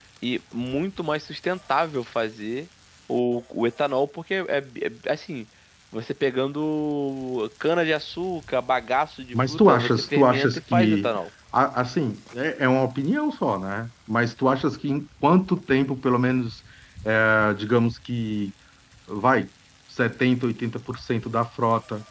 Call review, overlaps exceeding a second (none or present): present